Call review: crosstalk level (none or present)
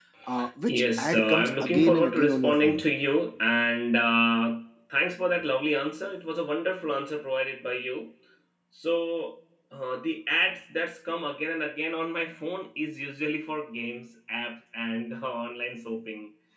present